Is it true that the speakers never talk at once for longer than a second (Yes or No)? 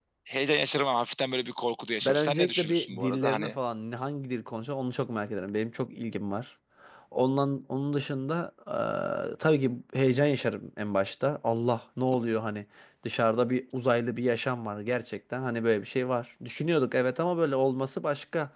No